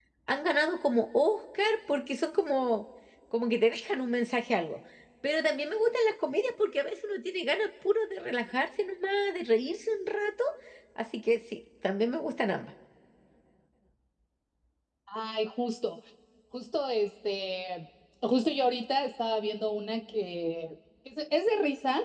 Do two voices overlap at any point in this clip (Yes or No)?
No